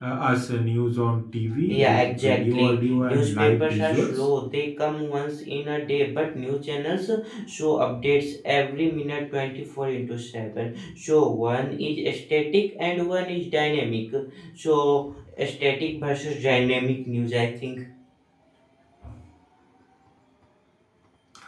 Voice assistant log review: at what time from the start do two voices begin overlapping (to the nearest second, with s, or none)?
2 s